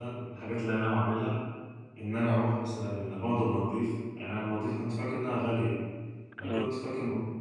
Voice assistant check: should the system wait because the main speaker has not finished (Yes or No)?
Yes